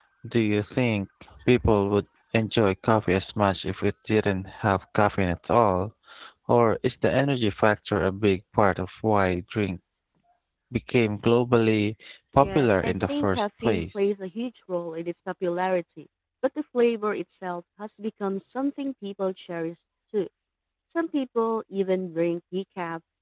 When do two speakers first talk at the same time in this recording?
12.4 s

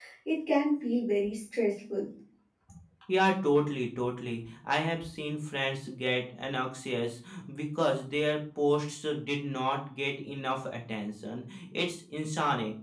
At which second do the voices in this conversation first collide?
none

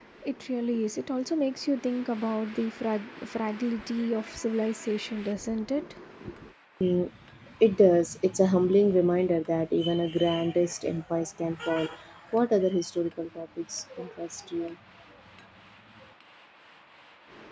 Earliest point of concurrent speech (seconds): none

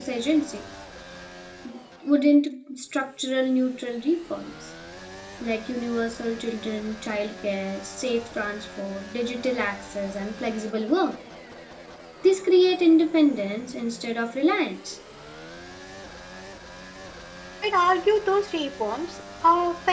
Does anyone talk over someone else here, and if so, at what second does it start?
none

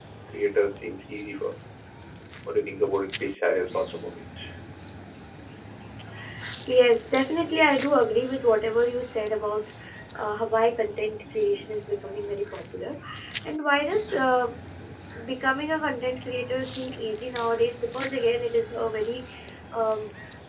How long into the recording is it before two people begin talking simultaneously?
none

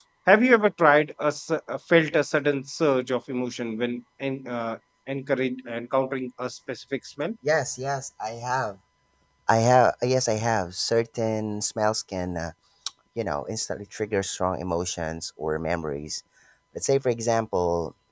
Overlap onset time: none

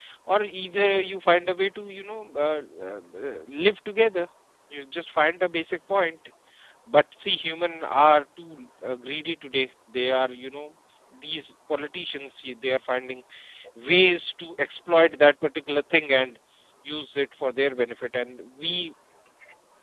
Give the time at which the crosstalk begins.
none

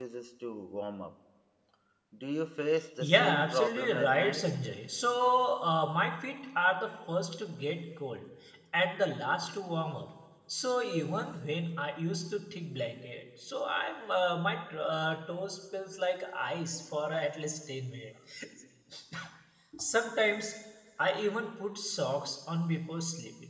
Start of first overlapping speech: 3.0 s

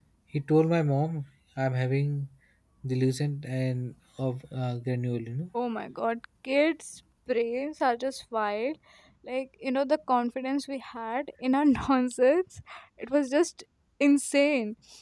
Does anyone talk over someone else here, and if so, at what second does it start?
none

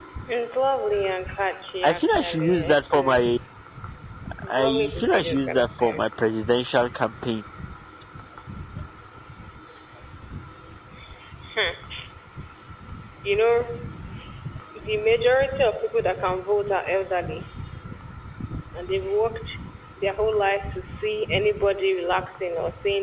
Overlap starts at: 1.8 s

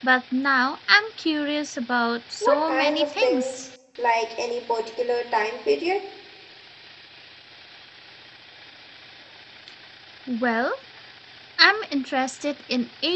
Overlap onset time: 2.4 s

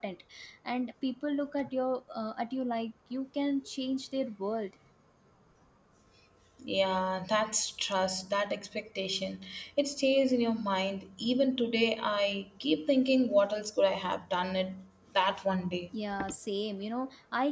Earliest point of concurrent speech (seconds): none

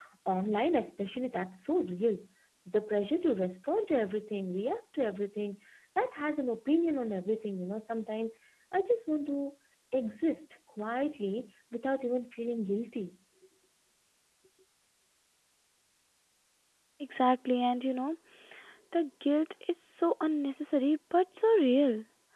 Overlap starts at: none

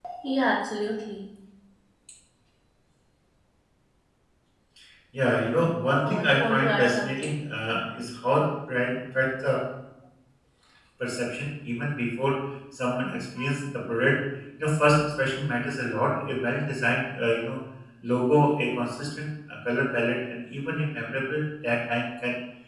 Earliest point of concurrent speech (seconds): 6.0 s

